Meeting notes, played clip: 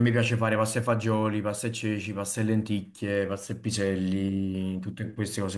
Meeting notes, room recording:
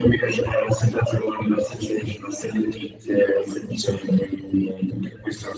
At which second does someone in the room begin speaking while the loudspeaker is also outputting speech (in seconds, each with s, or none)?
none